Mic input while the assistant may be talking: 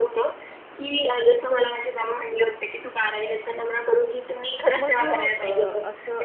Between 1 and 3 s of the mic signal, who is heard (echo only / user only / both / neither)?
echo only